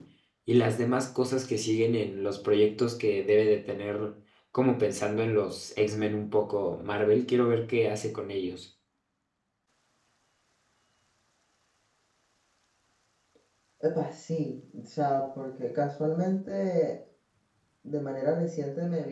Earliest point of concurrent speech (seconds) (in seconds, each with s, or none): none